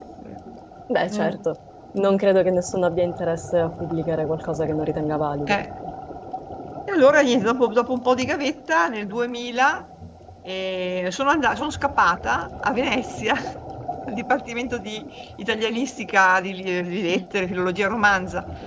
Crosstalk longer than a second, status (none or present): none